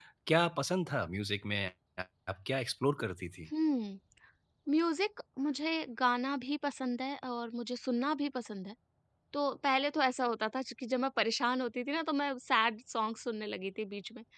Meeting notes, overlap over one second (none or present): none